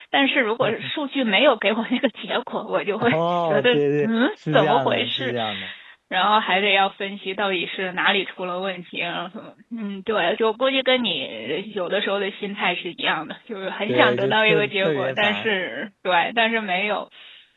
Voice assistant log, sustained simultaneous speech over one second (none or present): present